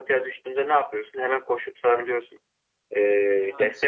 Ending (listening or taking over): listening